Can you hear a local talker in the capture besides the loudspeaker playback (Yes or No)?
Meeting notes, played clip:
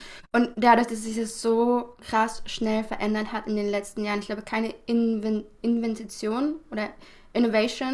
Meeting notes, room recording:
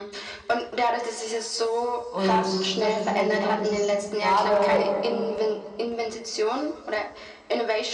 Yes